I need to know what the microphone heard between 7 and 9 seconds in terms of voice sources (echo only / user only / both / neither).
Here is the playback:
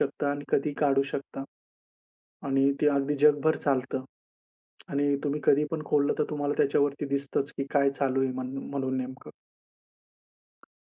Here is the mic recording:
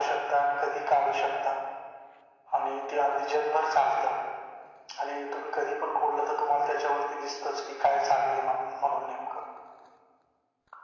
echo only